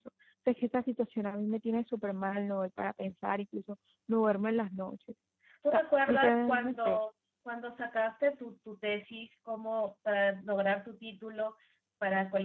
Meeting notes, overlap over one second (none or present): present